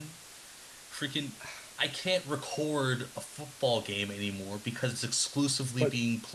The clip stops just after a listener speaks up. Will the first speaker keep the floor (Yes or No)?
Yes